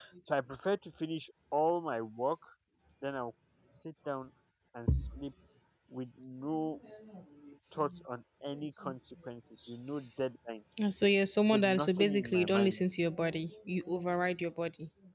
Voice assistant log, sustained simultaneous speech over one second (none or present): present